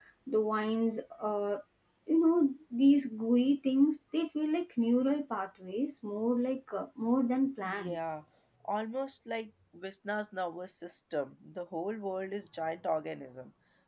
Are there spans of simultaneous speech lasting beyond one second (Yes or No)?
No